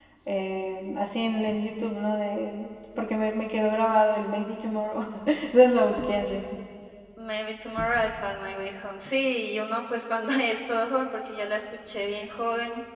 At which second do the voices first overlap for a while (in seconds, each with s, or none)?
none